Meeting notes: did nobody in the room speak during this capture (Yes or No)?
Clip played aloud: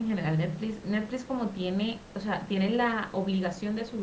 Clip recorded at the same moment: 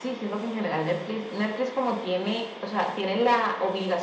Yes